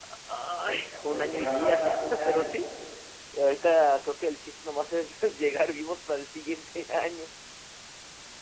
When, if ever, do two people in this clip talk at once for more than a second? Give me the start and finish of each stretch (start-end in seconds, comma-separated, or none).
0.9-2.7